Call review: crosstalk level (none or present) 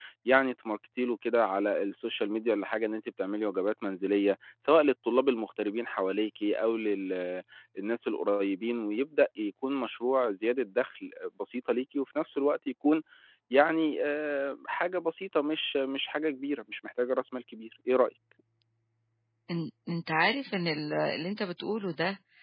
none